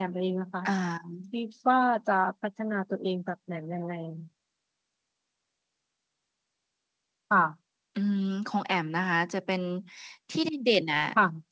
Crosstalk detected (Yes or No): No